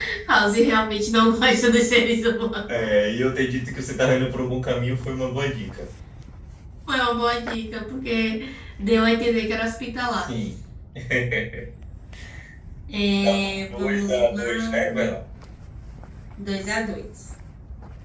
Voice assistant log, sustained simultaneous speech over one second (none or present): present